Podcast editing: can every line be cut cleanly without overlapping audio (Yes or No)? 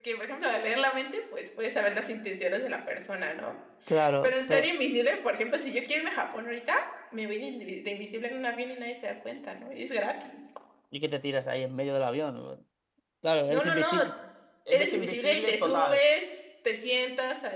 No